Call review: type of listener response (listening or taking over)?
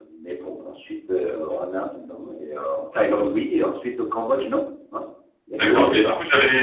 taking over